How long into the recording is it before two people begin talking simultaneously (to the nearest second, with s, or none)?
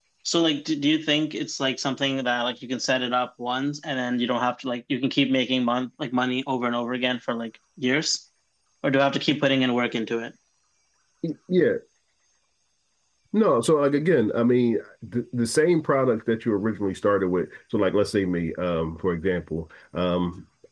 none